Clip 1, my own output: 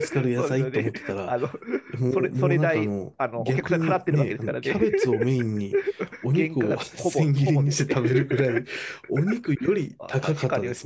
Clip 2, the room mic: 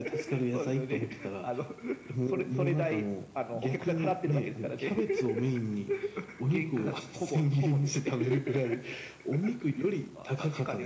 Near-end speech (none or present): none